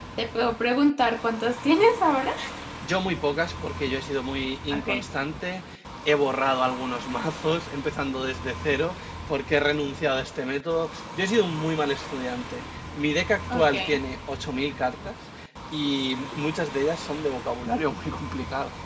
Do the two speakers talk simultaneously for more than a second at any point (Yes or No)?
No